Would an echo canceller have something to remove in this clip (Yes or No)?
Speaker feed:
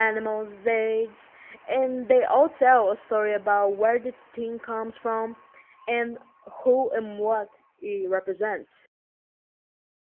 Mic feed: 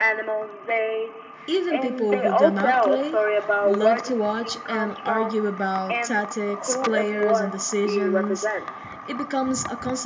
Yes